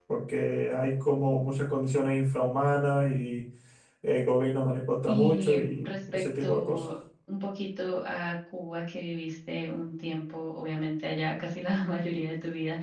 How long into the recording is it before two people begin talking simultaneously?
5.1 s

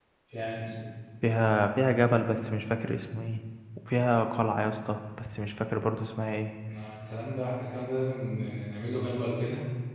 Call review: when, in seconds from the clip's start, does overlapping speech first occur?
none

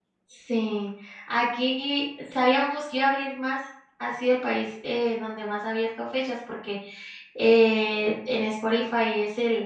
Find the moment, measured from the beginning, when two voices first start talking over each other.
none

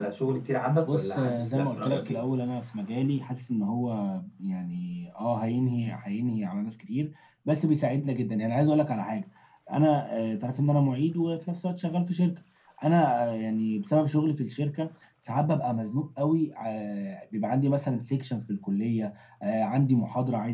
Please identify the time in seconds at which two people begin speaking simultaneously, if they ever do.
0.9 s

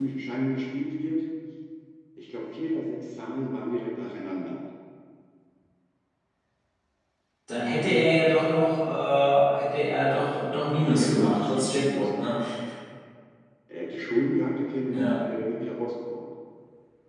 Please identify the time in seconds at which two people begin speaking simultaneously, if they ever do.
10.8 s

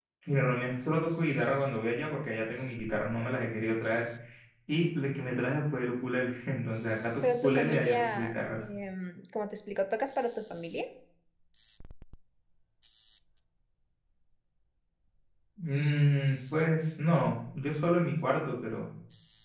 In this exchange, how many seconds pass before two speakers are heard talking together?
7.2 s

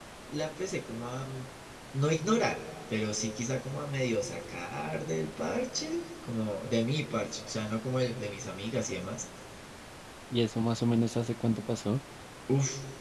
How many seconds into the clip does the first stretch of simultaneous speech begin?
none

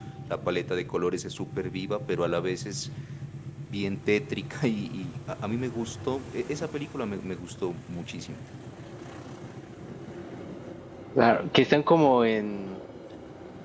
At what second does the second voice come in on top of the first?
none

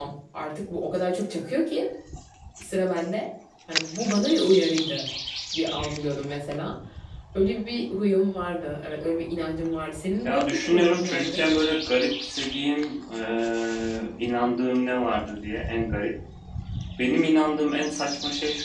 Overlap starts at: 10.2 s

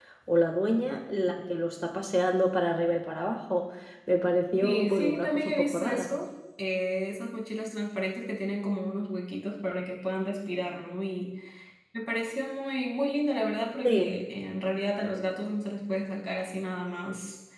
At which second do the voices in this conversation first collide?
4.6 s

